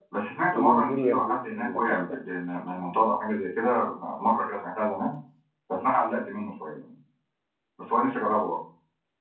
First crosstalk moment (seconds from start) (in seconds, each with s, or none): 0.5 s